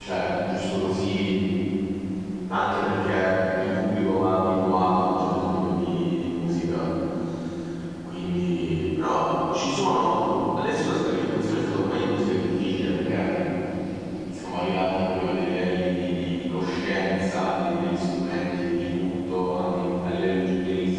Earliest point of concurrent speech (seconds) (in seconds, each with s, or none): none